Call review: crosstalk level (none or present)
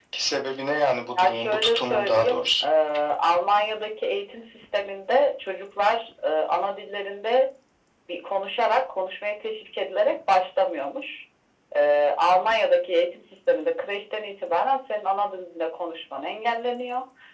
present